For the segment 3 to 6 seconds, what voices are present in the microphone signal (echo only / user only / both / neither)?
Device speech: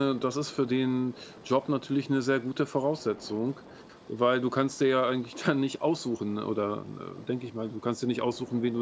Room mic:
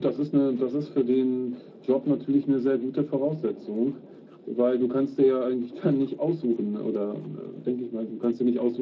echo only